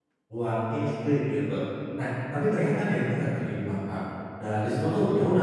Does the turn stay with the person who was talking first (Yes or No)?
Yes